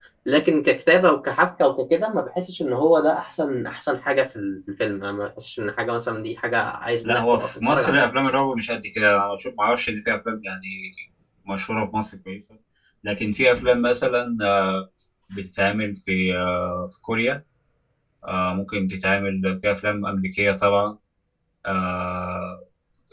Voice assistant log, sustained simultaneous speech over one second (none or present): present